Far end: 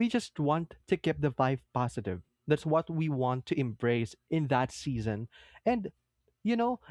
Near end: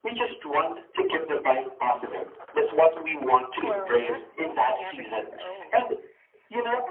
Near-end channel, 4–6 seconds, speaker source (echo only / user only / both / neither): both